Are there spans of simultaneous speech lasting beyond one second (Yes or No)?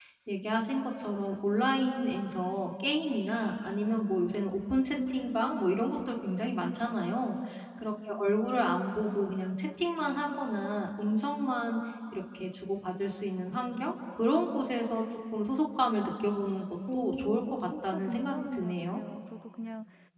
Yes